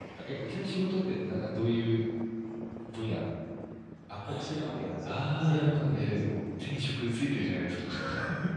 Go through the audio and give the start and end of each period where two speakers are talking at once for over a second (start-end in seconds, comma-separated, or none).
5.0-6.4